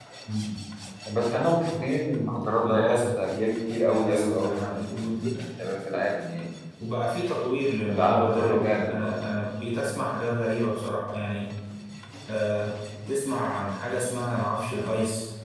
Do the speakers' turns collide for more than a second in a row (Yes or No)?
Yes